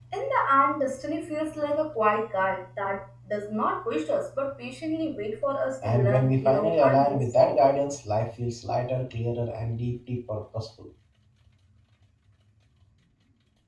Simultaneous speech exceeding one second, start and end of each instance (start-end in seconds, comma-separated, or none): 5.8-7.7